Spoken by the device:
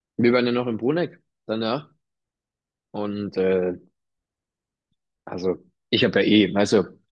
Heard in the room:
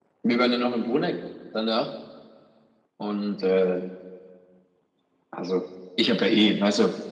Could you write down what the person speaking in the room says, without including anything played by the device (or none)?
none